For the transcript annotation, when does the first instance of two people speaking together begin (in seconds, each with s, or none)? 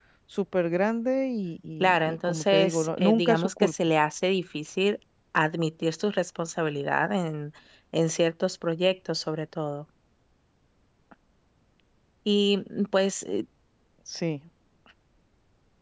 1.8 s